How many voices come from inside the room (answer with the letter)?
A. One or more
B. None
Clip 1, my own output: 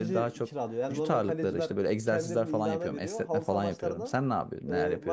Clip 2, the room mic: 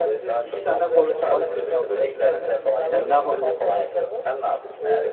A